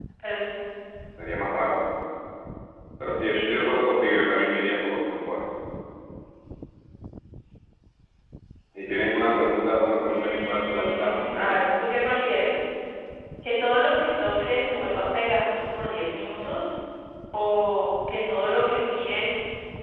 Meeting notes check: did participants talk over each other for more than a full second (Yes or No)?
Yes